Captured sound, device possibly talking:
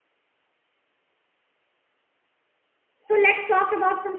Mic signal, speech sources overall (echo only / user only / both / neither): user only